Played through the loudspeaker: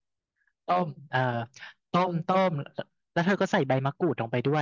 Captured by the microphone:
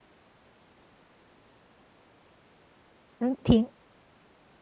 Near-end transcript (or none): แล้วทิ้ง